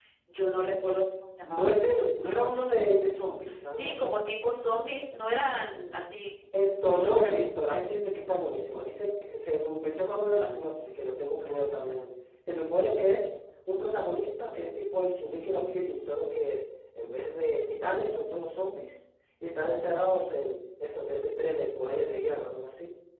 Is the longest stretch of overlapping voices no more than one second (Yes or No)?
Yes